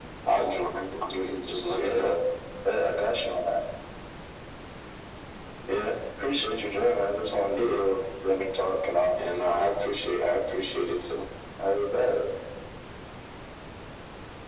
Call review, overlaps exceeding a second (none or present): none